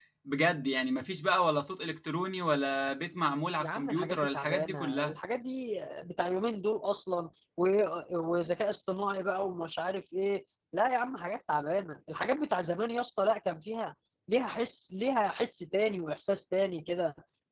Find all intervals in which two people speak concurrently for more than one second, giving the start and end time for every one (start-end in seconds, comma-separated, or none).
3.6-5.1